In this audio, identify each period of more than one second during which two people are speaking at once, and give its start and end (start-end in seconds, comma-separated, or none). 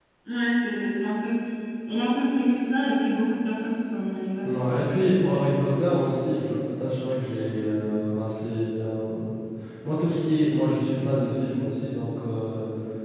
none